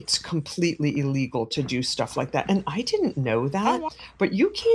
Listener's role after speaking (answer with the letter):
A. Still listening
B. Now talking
A